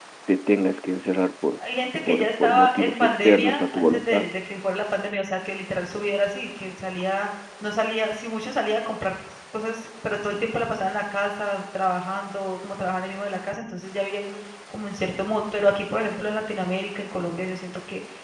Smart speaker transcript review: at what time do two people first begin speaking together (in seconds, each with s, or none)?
2.1 s